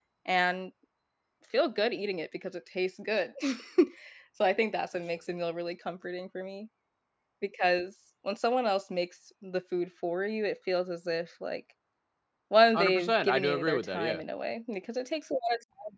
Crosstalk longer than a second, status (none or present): present